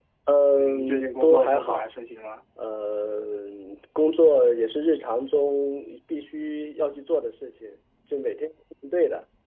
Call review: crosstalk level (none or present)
present